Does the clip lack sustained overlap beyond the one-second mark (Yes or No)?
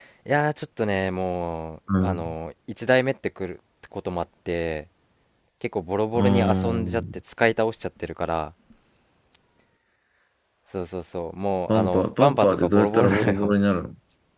No